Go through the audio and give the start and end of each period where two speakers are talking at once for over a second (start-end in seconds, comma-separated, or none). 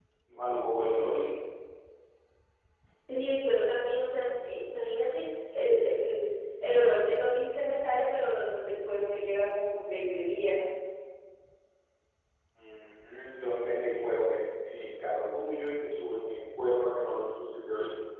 none